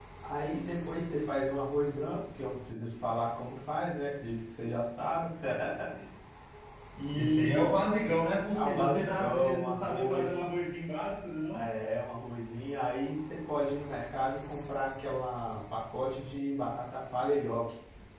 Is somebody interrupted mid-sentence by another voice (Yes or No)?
Yes